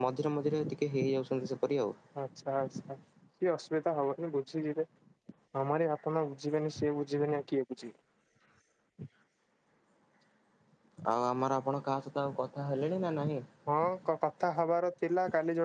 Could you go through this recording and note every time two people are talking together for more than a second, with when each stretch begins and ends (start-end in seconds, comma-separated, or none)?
none